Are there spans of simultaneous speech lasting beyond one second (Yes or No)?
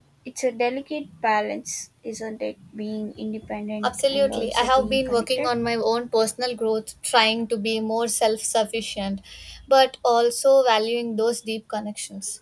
Yes